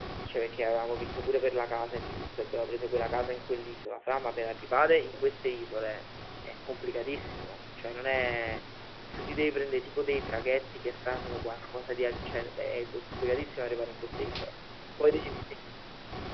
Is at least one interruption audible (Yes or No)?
No